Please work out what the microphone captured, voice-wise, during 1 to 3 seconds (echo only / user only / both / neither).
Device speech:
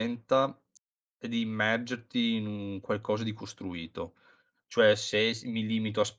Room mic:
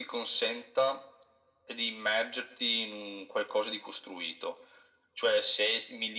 echo only